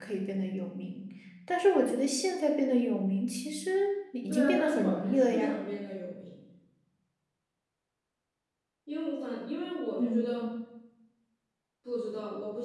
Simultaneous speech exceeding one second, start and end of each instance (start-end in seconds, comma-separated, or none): 4.3-5.5